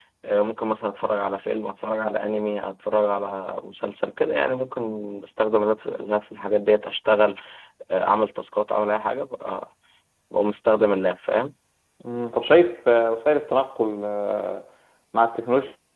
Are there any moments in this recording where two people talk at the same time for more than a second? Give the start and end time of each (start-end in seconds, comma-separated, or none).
none